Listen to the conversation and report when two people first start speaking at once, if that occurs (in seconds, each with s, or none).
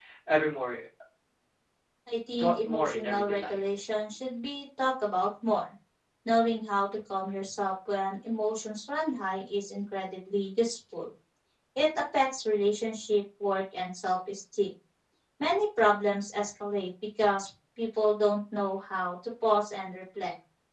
2.4 s